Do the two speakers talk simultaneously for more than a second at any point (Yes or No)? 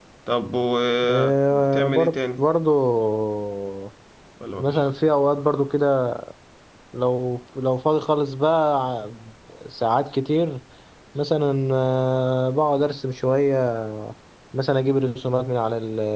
Yes